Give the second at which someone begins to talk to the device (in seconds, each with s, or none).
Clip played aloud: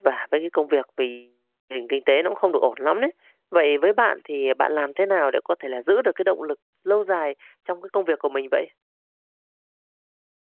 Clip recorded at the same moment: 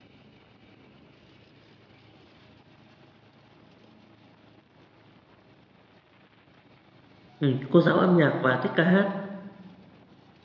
7.4 s